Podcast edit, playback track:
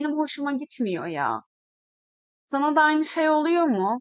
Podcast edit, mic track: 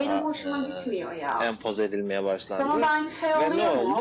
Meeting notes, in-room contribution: present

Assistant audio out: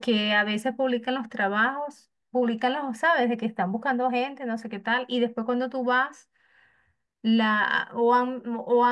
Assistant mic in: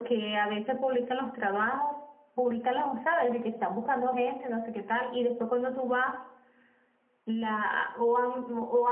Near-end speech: none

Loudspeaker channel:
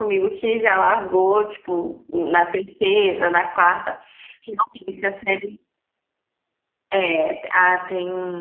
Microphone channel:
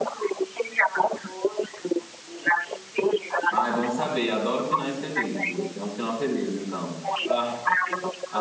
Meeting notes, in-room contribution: present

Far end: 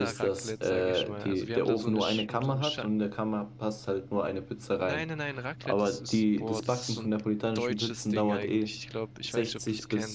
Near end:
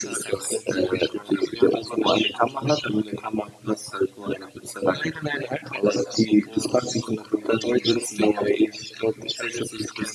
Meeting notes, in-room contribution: none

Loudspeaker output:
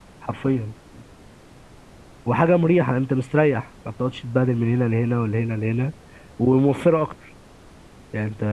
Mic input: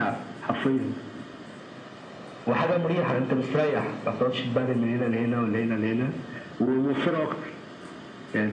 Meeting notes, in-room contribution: none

